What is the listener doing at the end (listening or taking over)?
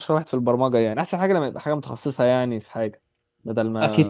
taking over